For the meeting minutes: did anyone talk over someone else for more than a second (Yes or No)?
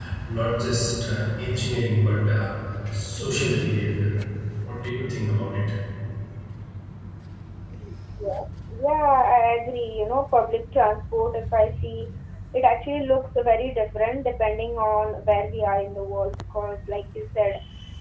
No